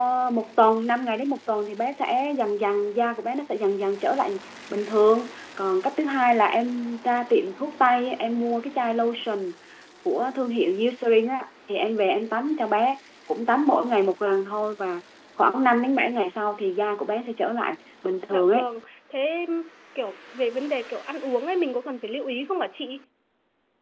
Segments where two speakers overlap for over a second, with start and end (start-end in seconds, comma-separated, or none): none